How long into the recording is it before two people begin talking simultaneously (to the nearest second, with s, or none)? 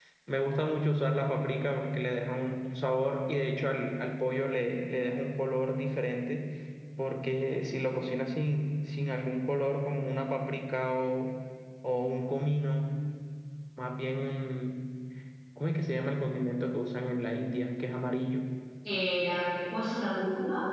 none